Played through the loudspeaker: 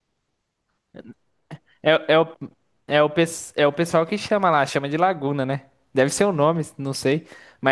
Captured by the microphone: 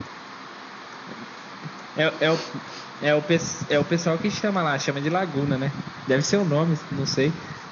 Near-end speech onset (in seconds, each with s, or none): none